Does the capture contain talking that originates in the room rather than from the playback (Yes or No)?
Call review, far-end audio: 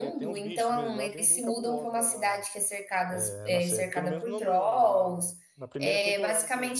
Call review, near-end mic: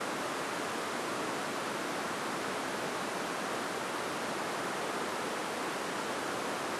No